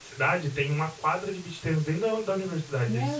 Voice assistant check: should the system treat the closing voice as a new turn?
No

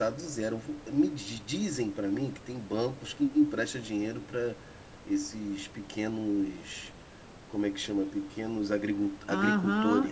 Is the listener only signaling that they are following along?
No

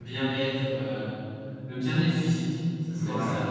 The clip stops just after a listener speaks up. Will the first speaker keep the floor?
No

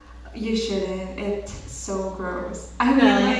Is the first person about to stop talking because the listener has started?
No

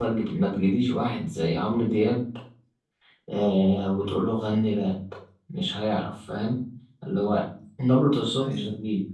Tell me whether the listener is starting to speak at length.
No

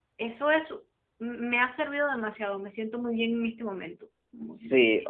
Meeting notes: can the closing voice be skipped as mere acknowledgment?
No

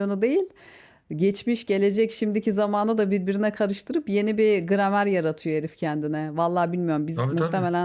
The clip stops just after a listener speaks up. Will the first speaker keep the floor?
Yes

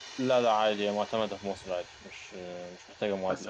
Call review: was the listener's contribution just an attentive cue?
No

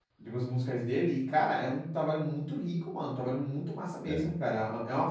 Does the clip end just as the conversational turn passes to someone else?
No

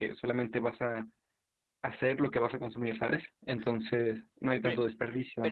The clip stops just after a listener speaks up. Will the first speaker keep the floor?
No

